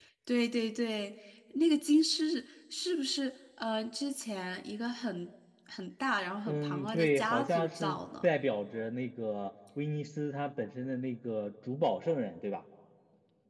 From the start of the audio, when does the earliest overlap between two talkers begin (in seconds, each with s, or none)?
6.5 s